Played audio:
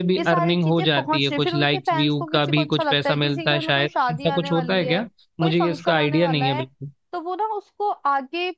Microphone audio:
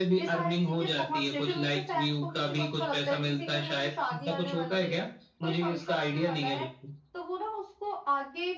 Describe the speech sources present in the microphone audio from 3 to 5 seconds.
echo only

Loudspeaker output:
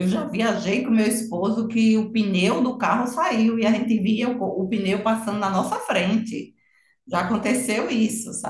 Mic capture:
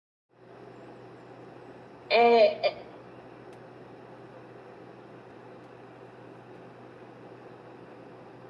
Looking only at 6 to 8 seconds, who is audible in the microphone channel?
neither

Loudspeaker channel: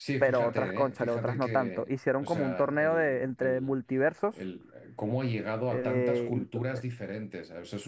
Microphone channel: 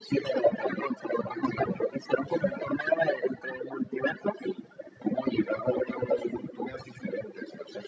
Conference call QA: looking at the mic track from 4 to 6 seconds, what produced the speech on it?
echo only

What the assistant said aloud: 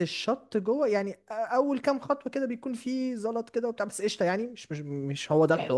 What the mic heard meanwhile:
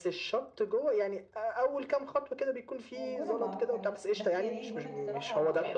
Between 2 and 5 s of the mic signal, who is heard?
both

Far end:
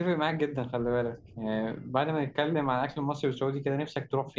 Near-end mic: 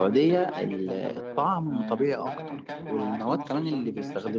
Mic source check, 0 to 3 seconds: both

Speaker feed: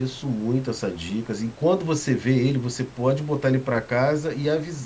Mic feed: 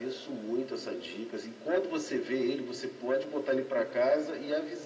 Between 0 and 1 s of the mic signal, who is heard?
echo only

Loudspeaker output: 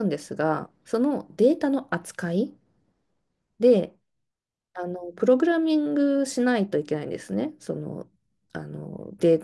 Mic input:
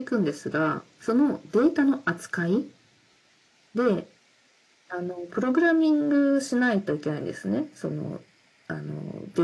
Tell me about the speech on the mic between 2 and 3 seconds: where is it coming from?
echo only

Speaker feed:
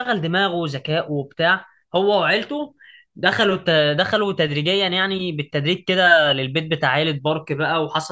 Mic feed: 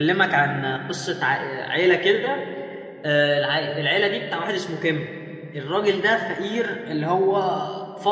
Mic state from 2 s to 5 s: user only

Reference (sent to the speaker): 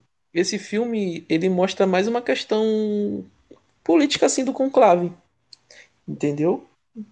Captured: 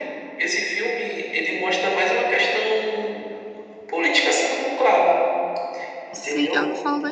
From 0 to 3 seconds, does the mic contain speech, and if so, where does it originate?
echo only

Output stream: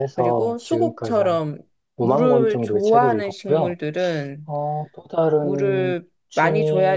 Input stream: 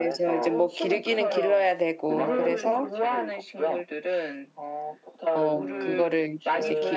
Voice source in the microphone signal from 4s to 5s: echo only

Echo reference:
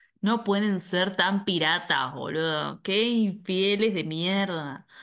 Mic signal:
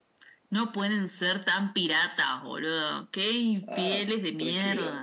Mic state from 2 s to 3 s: echo only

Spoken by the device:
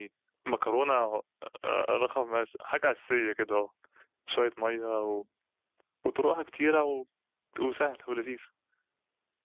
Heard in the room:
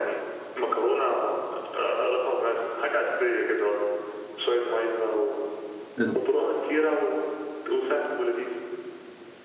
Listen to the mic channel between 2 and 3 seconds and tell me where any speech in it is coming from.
echo only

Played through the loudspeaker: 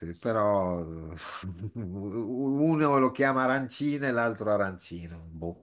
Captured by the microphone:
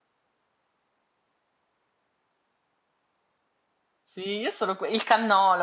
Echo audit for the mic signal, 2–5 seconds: user only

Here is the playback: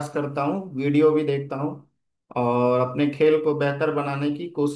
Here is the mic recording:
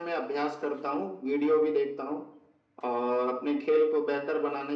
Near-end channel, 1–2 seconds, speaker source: echo only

